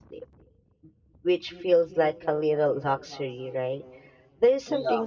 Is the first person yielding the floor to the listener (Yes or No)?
No